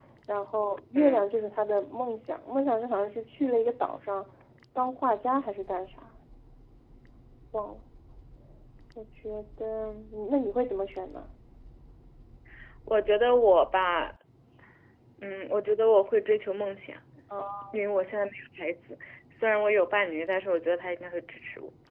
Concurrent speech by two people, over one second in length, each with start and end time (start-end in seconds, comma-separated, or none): none